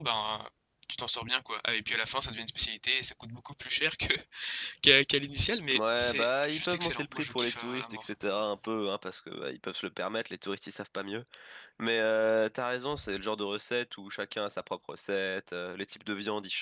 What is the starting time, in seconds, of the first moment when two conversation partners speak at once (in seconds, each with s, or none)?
5.7 s